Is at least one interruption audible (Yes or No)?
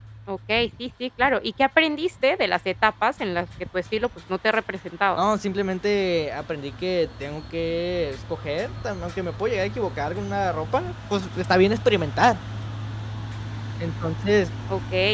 No